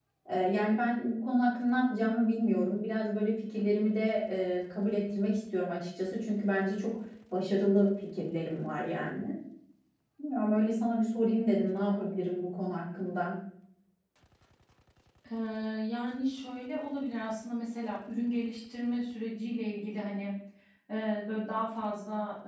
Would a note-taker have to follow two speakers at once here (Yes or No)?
No